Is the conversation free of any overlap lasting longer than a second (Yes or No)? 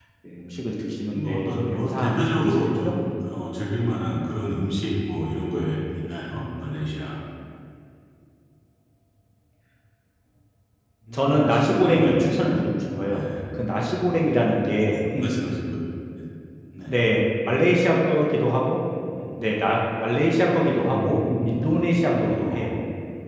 No